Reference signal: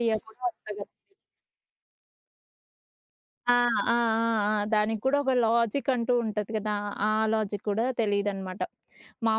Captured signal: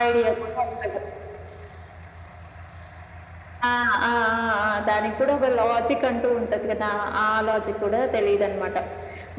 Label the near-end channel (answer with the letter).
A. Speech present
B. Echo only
B